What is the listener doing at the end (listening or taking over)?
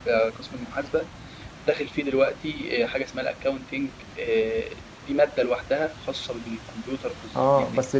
taking over